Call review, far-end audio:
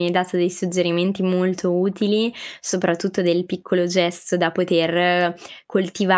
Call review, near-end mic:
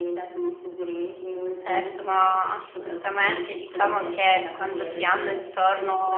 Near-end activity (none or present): present